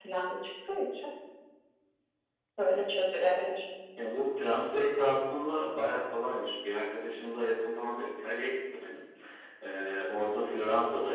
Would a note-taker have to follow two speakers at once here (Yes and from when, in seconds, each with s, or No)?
No